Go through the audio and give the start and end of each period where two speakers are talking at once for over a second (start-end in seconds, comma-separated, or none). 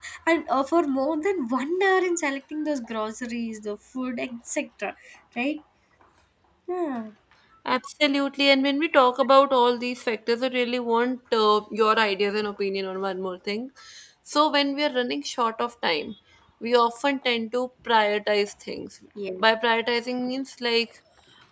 none